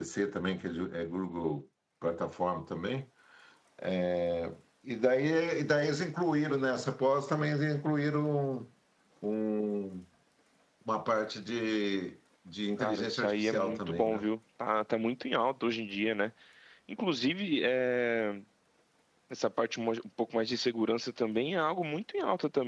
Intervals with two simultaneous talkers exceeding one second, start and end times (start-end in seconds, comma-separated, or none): 12.8-14.2